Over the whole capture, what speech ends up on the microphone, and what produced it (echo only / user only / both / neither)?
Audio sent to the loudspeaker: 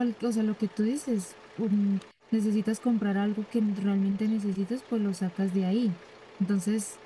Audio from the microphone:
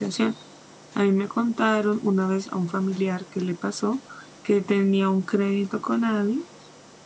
user only